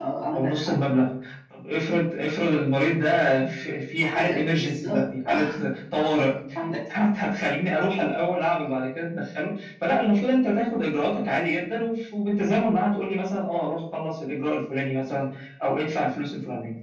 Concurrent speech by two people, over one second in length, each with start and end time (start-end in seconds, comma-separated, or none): 4.0-5.4